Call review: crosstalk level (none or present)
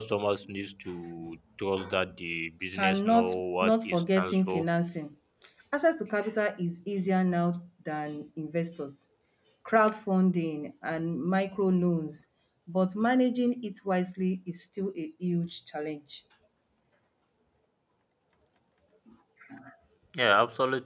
present